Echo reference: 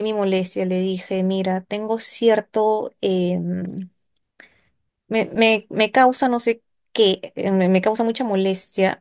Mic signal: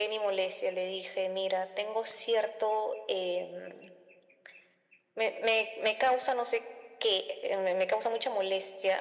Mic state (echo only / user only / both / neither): echo only